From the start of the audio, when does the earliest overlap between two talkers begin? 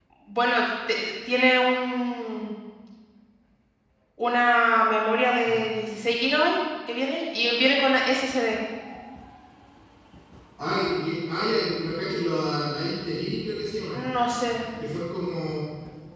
none

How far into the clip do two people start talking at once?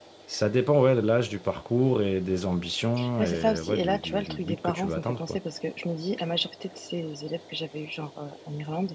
3.0 s

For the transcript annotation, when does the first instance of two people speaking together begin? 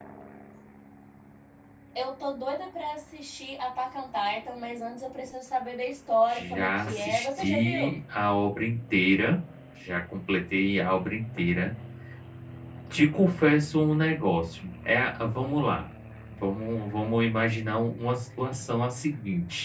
6.3 s

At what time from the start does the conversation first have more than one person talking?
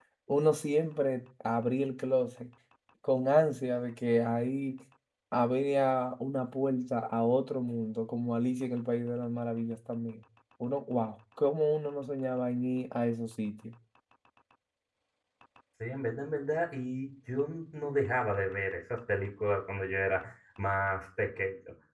none

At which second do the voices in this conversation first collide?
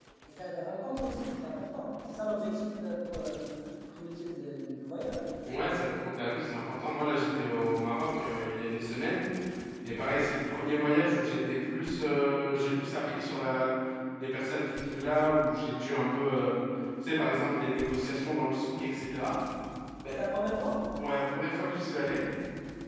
none

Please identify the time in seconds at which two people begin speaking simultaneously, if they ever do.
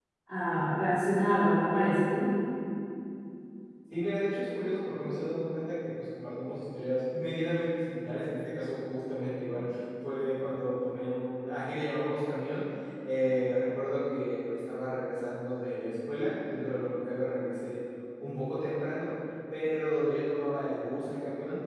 none

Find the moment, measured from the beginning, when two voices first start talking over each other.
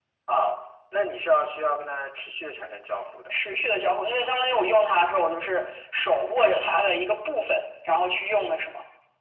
none

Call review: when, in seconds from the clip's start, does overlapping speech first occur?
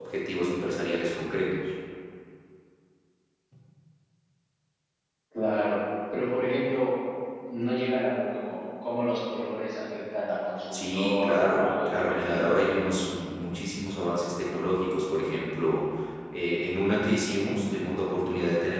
10.7 s

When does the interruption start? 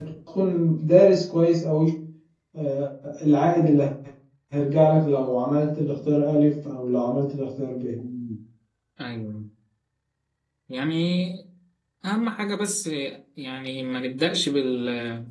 none

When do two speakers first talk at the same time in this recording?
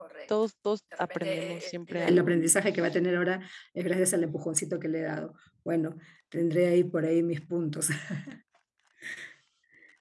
1.0 s

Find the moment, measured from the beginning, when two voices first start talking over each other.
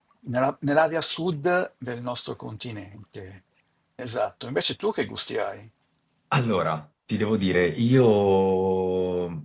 none

